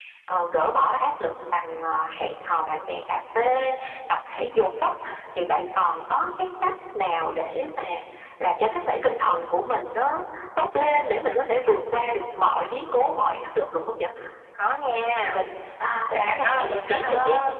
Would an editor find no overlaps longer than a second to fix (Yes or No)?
No